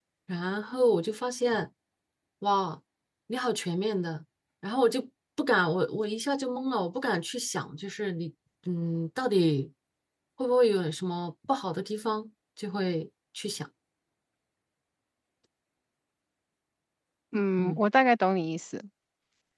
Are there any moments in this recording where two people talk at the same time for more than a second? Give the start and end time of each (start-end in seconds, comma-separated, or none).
none